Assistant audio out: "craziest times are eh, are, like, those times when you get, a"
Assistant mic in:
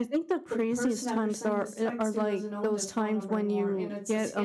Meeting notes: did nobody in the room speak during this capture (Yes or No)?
No